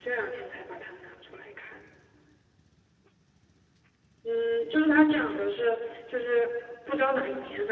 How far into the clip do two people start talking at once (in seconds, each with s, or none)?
none